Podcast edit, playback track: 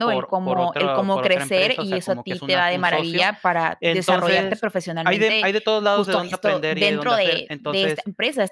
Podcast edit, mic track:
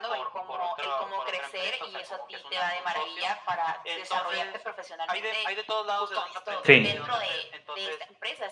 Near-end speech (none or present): present